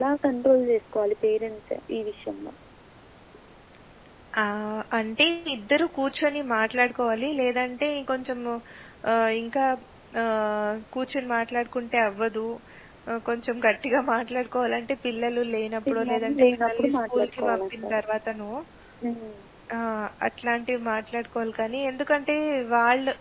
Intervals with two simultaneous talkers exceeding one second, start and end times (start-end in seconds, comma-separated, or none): 15.9-18.0